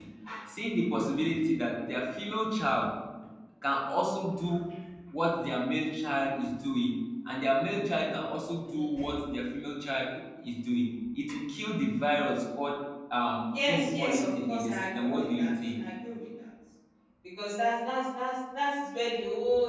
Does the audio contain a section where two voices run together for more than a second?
Yes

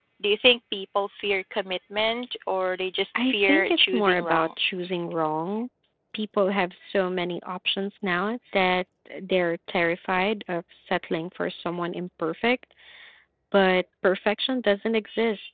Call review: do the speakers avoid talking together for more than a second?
No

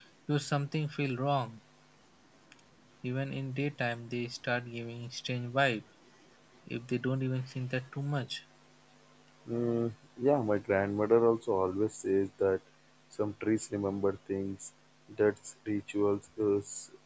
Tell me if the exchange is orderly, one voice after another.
Yes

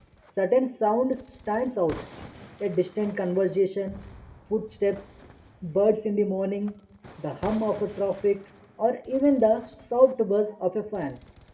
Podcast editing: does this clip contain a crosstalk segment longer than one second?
No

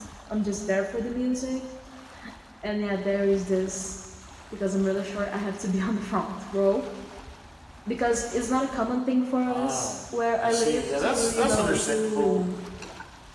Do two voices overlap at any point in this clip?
Yes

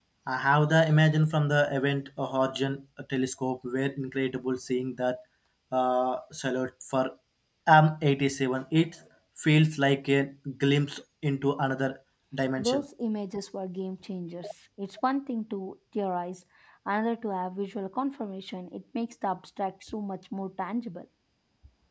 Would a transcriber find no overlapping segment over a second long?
Yes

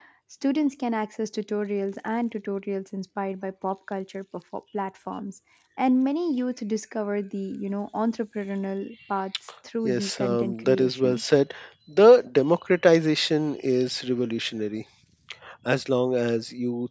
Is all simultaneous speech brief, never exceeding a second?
No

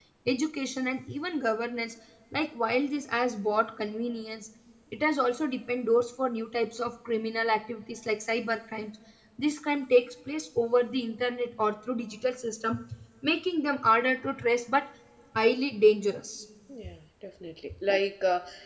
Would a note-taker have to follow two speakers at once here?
No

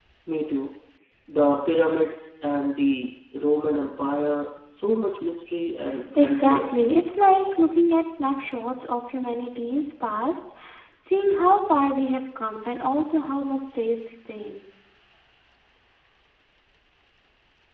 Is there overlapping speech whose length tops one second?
No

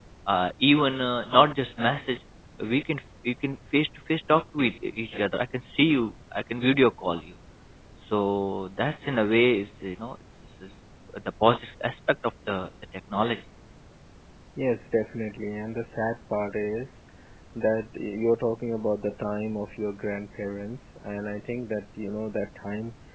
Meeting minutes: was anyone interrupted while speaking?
No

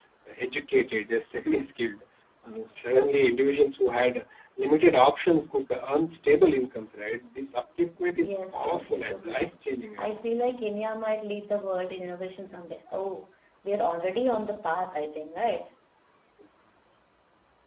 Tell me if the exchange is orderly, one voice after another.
No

